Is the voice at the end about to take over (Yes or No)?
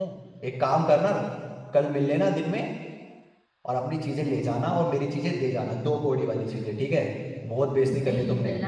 Yes